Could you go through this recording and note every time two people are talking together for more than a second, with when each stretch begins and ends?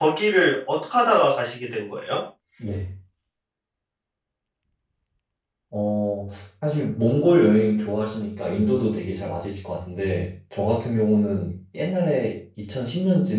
none

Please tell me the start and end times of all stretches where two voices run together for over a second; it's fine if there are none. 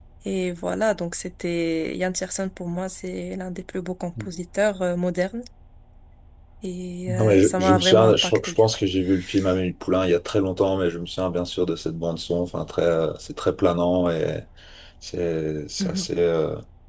7.1-8.6

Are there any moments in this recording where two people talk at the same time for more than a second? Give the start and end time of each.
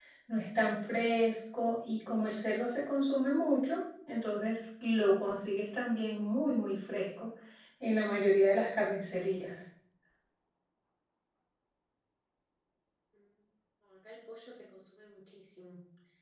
none

